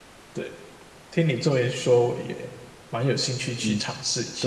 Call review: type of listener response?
taking over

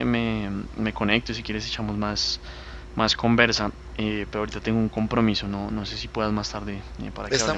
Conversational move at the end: taking over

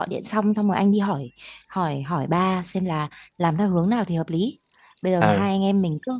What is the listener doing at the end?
listening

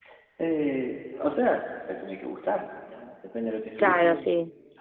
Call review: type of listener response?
taking over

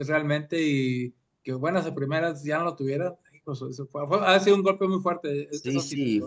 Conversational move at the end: taking over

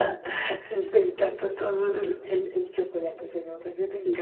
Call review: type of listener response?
taking over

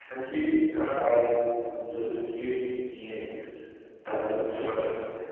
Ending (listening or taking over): listening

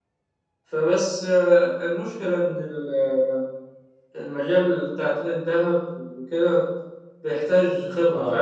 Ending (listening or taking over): listening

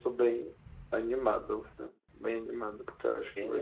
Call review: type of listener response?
taking over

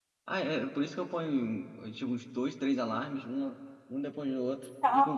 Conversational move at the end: taking over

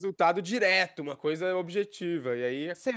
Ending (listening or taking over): taking over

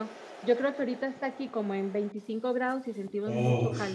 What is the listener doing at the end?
taking over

